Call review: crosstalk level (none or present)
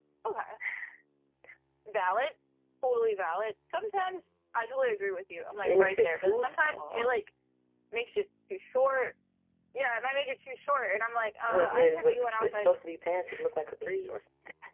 present